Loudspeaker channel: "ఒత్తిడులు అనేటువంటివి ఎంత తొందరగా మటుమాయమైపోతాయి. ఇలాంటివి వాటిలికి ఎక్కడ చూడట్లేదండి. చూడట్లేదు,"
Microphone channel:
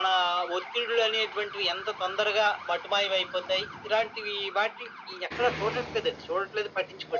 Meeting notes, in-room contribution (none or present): none